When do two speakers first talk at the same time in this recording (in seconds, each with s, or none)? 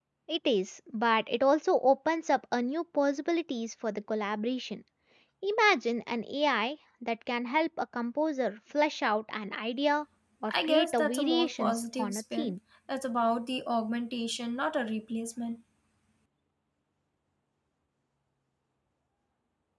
10.5 s